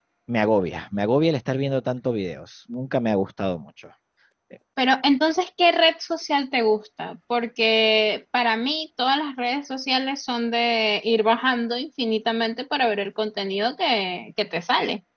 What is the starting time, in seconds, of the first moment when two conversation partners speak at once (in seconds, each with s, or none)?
none